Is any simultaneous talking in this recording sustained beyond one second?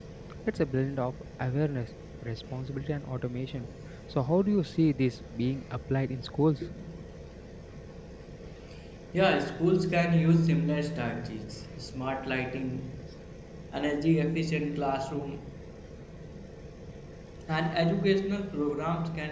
No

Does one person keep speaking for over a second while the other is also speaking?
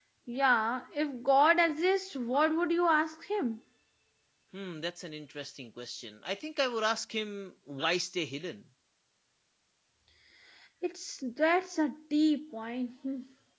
No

